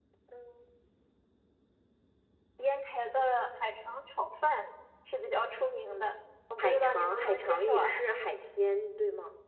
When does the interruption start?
6.6 s

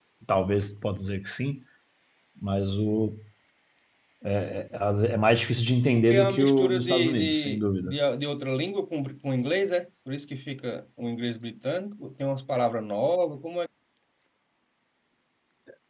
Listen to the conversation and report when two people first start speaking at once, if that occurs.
6.1 s

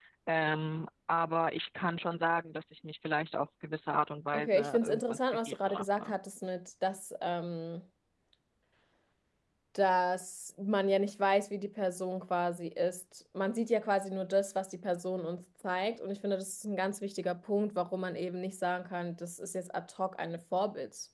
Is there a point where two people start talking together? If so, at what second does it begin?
4.3 s

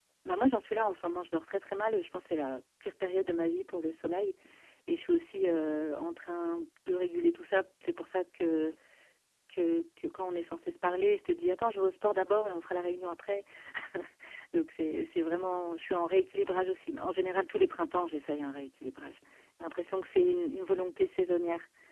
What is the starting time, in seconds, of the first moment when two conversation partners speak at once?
none

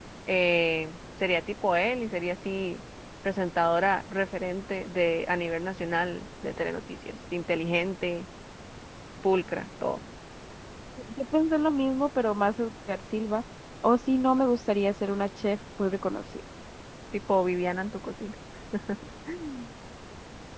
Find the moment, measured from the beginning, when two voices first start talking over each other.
none

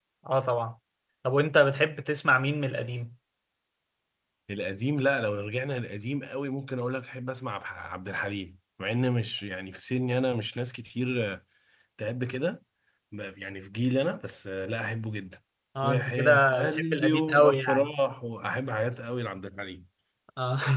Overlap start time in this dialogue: 15.8 s

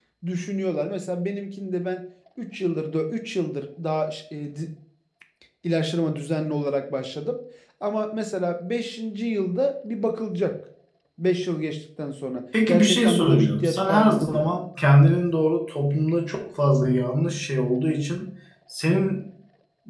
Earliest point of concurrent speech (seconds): 12.5 s

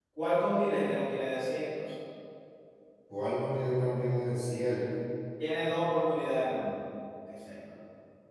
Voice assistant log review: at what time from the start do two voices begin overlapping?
none

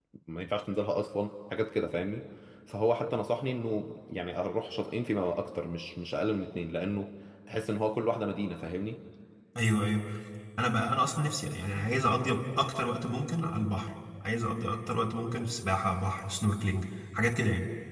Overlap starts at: none

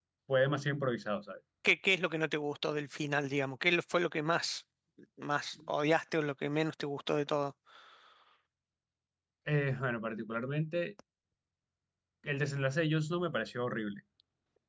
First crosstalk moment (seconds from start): none

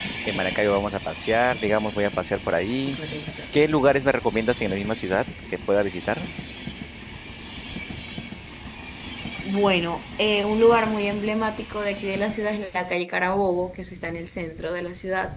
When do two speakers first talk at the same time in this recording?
none

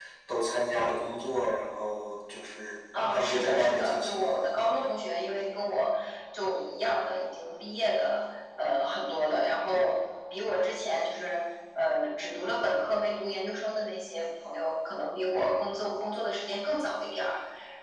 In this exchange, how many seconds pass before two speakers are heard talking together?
2.9 s

